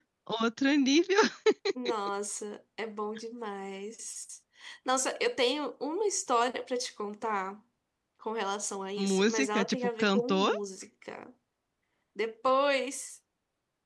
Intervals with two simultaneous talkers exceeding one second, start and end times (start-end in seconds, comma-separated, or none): 9.0-10.5